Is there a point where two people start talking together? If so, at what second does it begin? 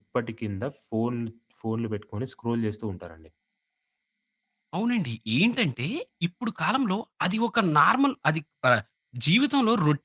none

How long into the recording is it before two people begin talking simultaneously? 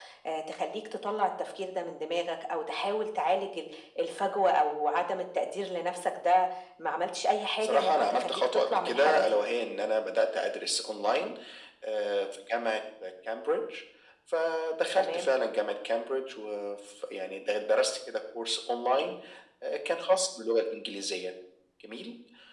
8 s

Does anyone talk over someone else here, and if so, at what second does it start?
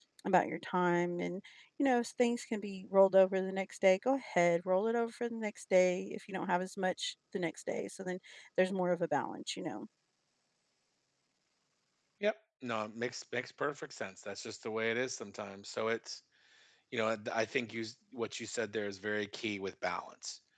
none

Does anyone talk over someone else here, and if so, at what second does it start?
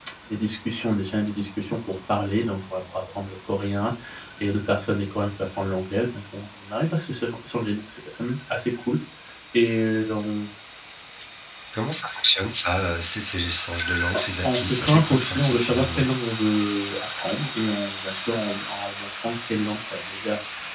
14 s

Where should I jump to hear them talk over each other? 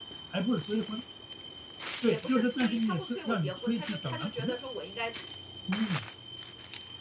2 s

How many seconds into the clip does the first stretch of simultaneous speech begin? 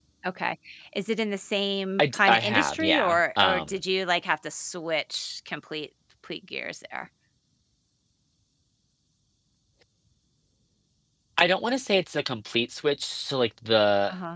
2 s

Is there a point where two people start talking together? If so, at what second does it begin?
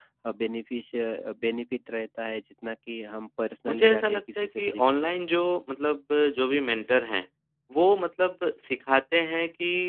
4 s

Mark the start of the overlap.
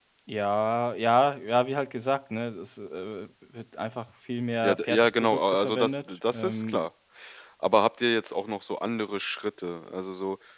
5 s

